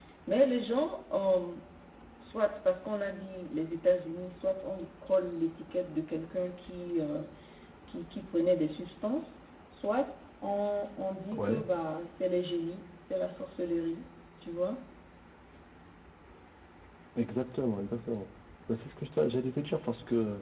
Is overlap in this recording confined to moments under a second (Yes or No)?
Yes